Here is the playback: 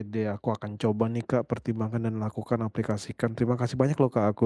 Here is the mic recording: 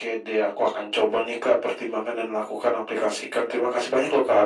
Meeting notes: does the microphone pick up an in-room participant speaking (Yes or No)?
No